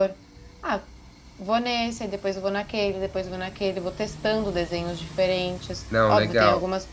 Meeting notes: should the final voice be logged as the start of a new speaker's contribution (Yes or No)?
No